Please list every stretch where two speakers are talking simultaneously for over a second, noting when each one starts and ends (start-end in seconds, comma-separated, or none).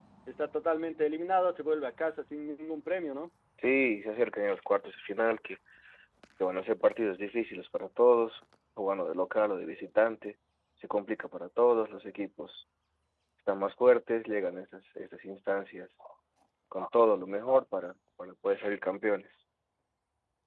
none